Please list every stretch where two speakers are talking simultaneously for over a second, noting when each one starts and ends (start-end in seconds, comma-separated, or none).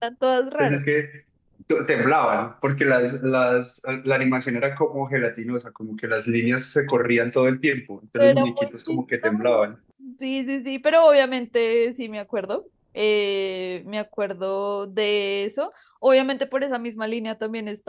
8.2-9.6